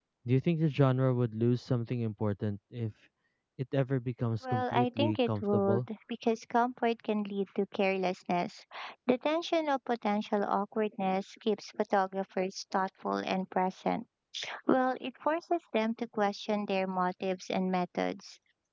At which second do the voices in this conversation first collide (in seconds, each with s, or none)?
4.4 s